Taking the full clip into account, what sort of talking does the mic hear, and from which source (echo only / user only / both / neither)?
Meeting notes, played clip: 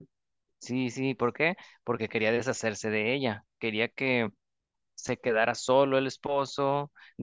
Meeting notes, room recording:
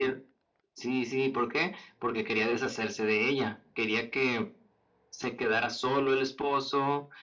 echo only